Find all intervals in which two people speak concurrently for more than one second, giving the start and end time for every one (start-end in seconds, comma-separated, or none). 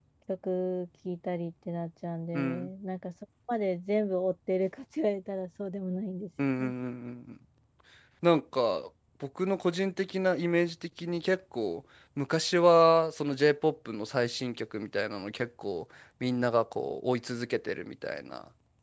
none